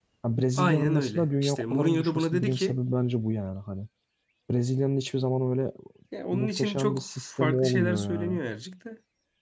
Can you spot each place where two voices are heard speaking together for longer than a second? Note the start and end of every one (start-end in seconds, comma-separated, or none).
0.6-2.8, 6.3-8.4